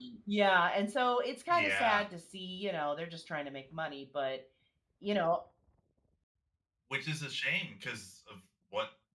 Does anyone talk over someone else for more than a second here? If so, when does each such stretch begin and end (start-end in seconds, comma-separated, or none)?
none